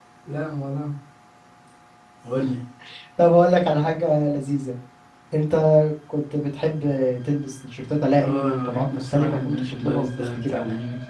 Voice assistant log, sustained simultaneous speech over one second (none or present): present